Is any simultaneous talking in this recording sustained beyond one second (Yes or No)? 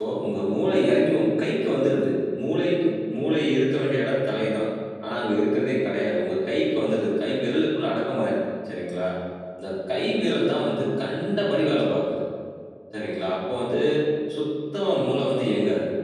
No